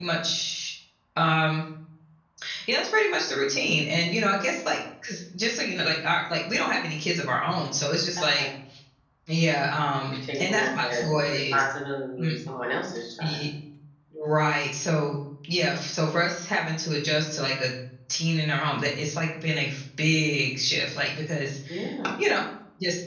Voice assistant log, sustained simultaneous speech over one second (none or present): present